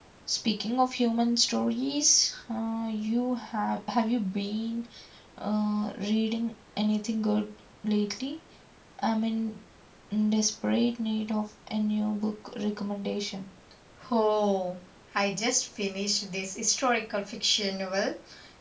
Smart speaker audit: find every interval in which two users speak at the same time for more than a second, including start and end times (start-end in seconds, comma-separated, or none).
none